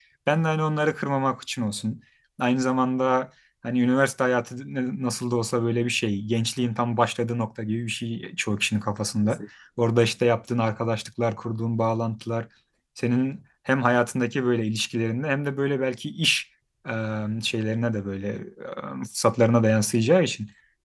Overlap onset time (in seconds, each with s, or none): none